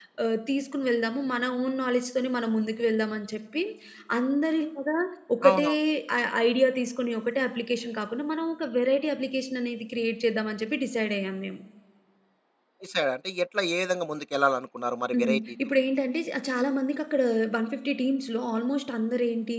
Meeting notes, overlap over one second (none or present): none